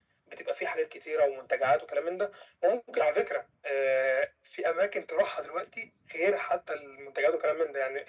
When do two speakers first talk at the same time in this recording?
none

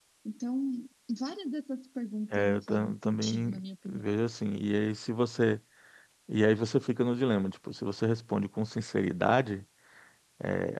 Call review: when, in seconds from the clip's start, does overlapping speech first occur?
2.3 s

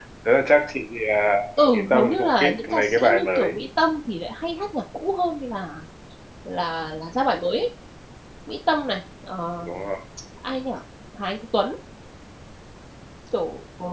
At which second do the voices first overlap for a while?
1.6 s

